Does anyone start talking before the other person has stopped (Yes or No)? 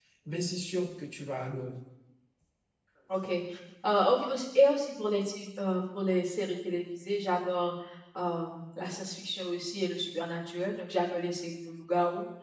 No